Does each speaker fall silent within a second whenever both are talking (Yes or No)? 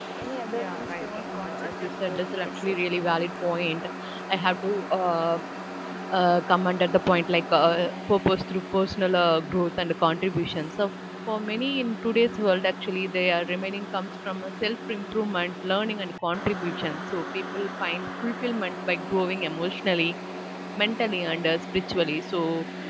No